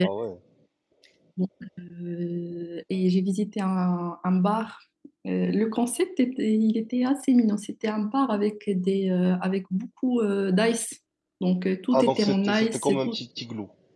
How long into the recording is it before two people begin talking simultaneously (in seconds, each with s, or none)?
11.9 s